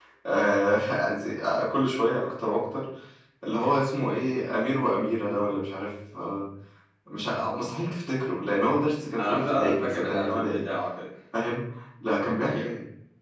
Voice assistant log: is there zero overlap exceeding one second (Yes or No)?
No